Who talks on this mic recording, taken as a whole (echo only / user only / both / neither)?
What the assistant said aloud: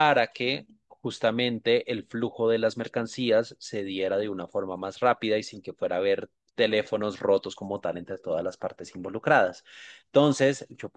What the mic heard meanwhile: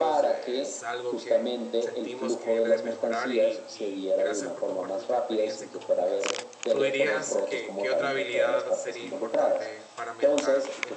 both